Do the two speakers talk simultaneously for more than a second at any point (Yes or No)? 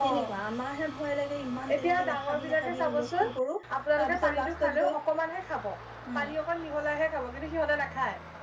Yes